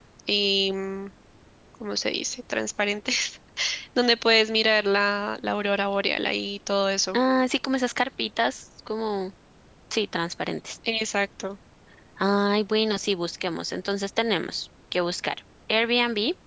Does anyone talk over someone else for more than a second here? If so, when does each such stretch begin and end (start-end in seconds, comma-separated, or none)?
none